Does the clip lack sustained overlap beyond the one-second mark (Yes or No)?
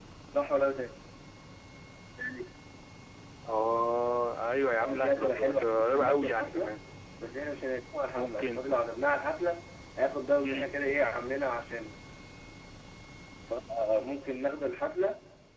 No